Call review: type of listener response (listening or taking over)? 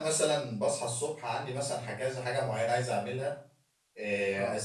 listening